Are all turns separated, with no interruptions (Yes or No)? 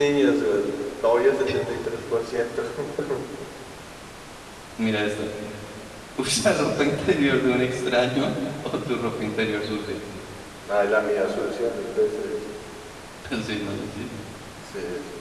Yes